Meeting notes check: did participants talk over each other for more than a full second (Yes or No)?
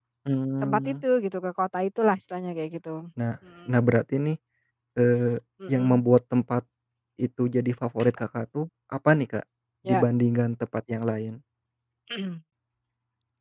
No